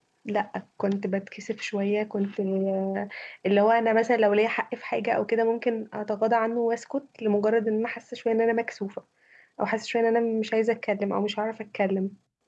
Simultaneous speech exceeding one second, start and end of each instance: none

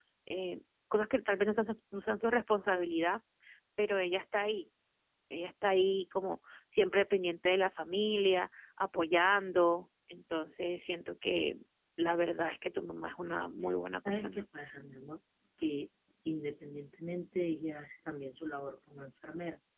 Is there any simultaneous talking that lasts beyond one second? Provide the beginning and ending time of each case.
none

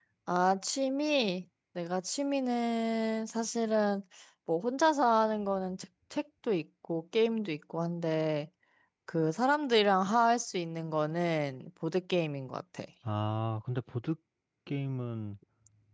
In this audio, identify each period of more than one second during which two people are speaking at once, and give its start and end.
none

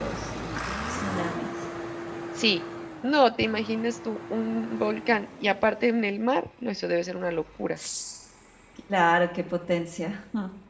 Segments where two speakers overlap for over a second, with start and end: none

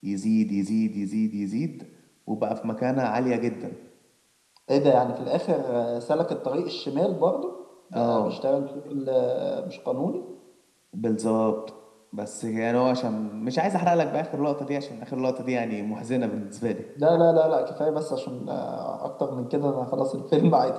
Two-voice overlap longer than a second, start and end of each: none

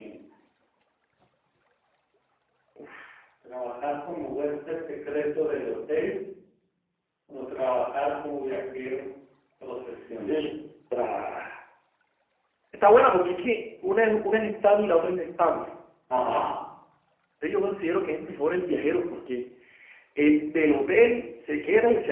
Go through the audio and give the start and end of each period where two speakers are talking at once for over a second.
none

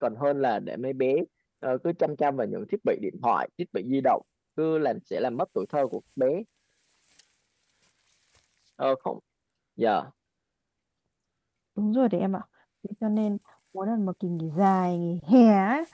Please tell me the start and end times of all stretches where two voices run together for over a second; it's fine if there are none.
none

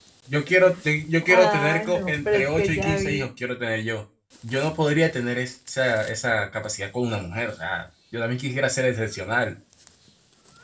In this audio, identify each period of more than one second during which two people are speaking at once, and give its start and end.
1.3-3.2

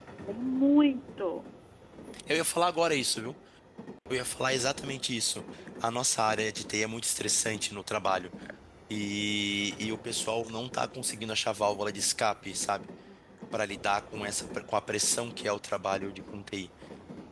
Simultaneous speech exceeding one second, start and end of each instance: none

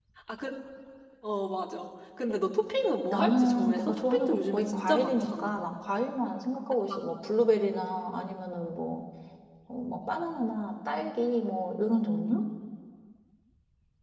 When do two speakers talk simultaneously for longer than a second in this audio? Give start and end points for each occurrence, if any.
3.1-5.5

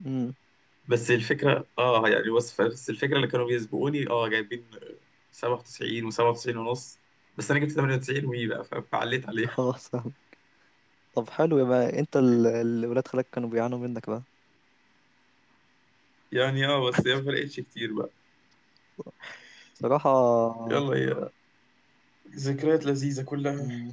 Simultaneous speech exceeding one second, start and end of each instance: none

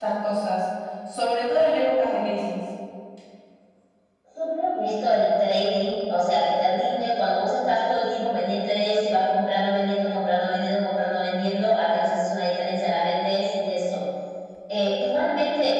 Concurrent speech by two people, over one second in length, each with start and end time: none

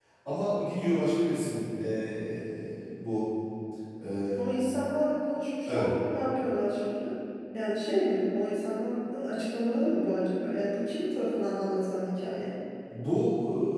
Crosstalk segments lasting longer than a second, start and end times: none

